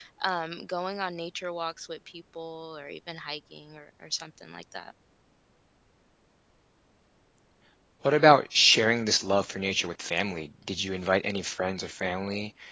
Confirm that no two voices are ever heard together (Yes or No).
Yes